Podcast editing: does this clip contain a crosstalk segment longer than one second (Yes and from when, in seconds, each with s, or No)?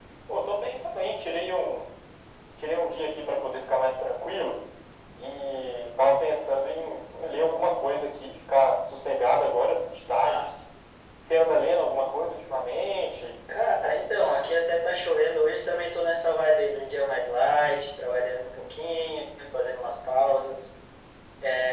No